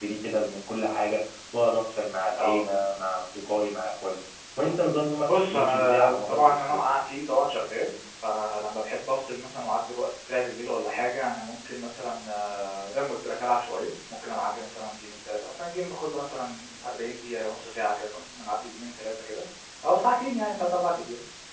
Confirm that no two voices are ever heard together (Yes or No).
No